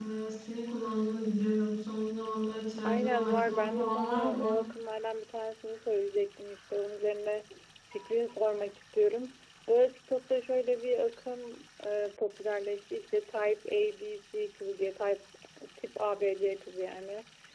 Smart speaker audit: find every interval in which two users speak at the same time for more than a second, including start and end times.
2.8-4.6

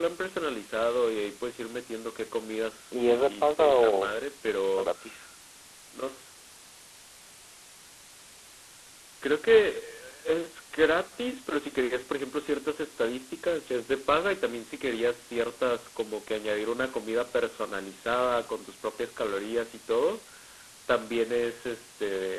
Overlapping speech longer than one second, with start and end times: 2.9-4.1

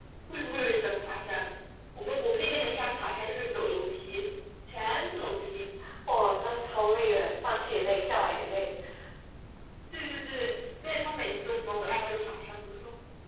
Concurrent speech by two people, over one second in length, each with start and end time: none

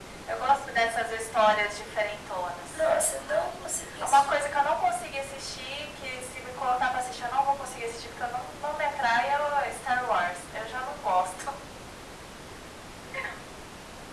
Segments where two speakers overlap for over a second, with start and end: none

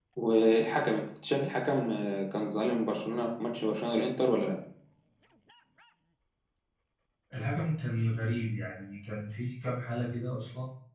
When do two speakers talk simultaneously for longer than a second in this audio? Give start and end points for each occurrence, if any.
none

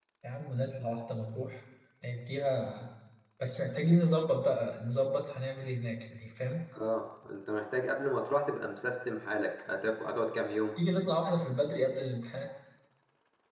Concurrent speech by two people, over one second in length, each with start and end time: none

